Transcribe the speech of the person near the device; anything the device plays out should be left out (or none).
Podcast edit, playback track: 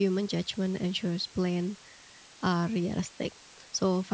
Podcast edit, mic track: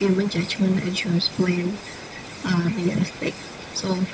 none